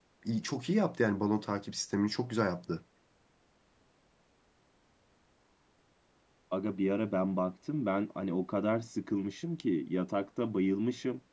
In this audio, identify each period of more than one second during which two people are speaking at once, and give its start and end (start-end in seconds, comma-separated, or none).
none